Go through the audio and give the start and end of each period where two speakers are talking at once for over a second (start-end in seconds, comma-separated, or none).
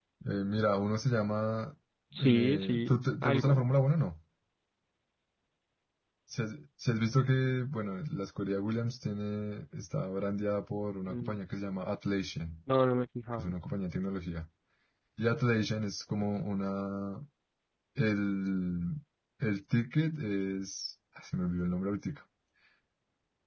2.2-3.6